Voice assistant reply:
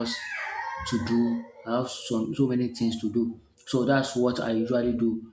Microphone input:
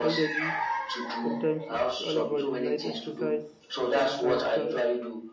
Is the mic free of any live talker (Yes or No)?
No